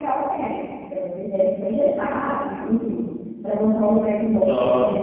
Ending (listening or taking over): taking over